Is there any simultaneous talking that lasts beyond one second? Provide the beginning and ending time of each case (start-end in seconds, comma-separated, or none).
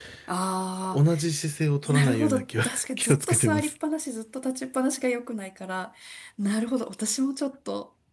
1.8-3.7